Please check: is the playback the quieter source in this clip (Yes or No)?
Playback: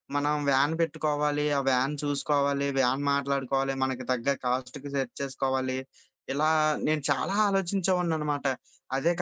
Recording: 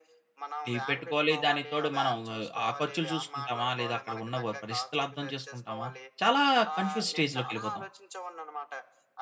Yes